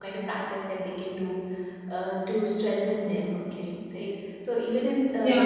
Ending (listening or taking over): listening